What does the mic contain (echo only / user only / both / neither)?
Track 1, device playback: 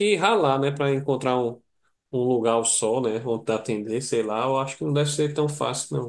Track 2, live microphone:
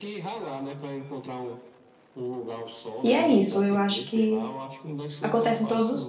both